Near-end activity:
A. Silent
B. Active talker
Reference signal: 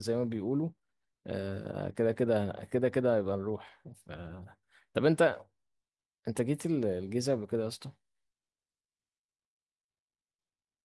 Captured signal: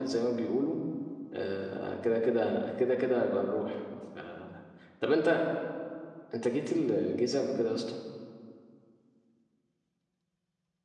A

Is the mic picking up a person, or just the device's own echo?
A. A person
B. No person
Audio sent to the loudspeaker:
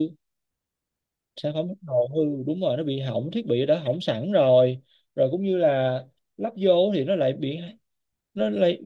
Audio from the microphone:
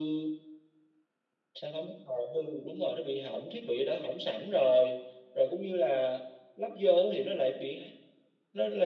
B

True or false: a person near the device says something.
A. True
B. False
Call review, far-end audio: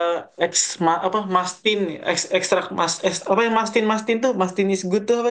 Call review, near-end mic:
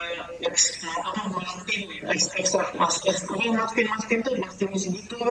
B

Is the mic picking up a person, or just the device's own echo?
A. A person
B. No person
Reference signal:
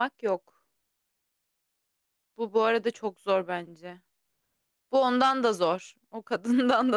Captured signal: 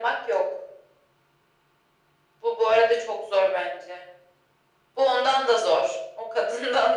B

